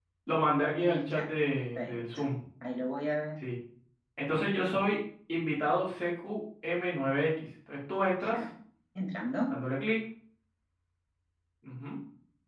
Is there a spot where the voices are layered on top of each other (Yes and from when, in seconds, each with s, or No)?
Yes, from 0.8 s